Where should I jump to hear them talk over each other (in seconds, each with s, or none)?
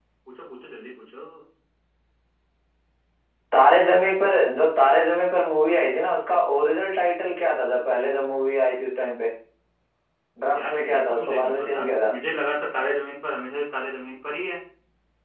10.5 s